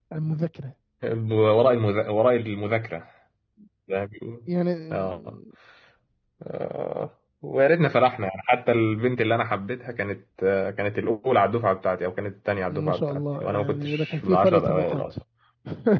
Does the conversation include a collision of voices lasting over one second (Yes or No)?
Yes